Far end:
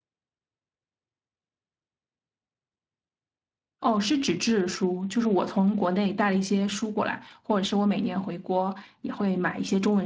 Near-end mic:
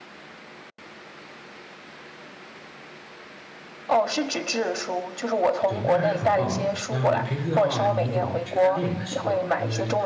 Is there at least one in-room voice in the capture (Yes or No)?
Yes